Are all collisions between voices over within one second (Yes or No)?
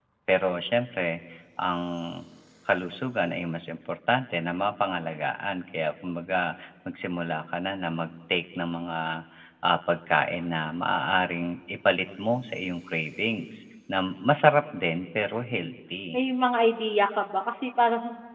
Yes